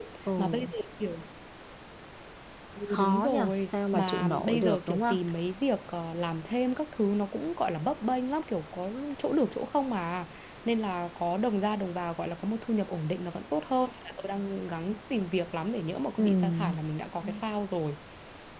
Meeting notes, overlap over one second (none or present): present